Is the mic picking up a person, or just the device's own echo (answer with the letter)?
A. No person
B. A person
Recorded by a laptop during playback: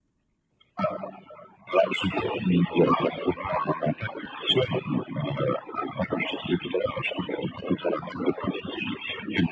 A